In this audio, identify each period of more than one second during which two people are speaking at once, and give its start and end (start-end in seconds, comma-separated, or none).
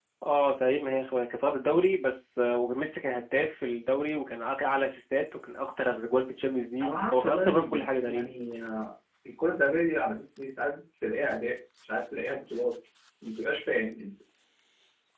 6.8-8.2